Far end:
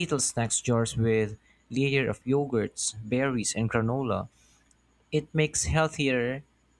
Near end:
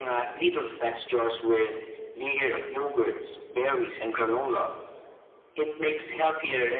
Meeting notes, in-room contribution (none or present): none